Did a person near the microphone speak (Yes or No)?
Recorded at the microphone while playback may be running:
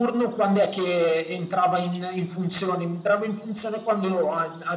No